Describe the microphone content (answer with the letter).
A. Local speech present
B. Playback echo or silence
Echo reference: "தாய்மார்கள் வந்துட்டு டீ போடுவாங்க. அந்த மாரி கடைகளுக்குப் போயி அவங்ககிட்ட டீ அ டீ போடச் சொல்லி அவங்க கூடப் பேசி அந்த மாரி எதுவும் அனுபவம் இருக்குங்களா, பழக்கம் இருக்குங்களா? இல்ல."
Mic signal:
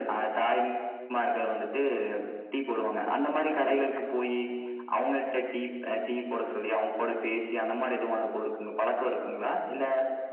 A